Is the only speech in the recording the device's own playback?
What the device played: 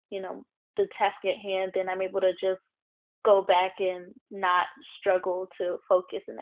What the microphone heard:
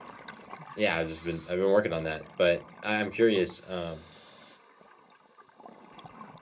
No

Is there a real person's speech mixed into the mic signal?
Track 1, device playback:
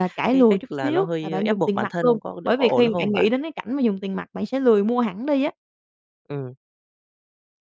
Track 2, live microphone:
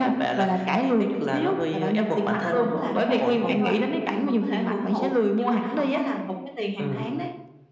Yes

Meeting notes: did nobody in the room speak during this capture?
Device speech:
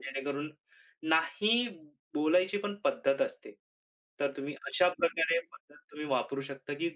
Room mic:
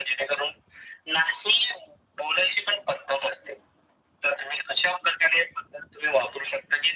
Yes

